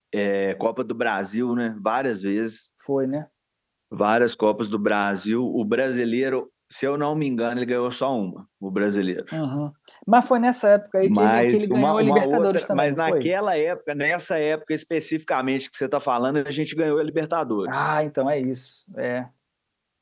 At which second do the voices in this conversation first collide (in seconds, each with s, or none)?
11.0 s